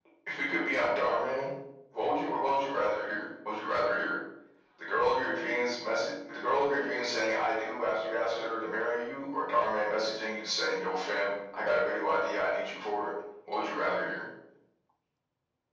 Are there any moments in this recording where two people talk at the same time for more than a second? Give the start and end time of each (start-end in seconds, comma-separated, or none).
none